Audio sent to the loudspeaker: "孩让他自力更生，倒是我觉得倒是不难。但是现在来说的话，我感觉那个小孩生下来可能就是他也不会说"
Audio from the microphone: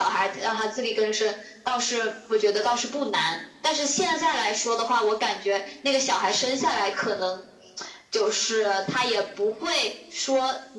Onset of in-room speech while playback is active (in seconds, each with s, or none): none